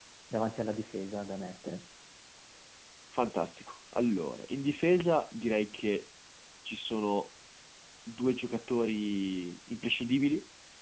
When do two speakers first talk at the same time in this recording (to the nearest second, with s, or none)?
none